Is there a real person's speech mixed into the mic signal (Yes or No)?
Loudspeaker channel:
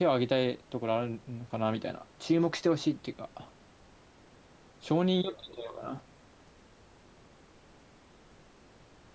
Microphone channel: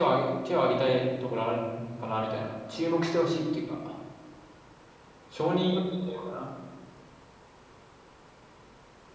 No